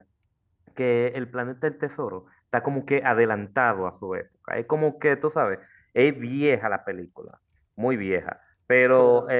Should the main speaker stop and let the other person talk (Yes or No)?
No